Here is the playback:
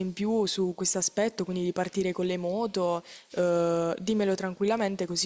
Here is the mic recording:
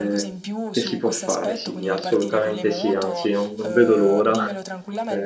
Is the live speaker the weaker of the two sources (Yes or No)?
No